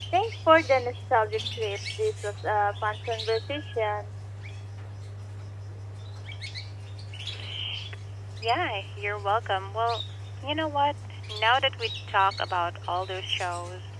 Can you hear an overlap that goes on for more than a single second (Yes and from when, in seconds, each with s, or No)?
No